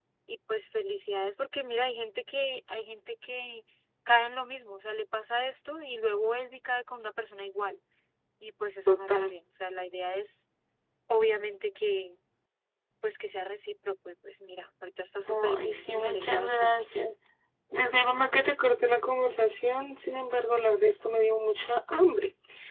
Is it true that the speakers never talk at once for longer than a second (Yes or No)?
No